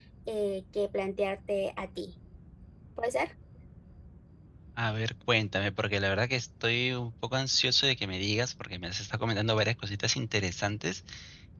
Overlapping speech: No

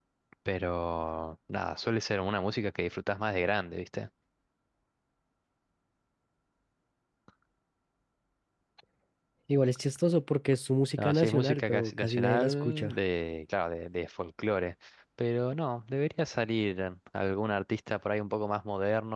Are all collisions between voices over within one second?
No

